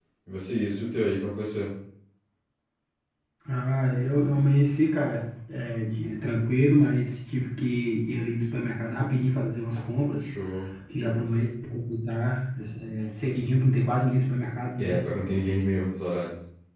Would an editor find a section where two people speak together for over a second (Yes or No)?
No